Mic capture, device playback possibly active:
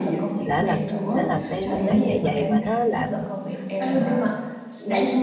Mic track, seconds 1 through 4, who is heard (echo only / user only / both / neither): both